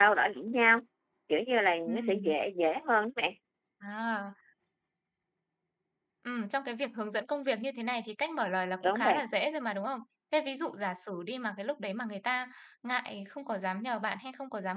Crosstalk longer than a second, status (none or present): none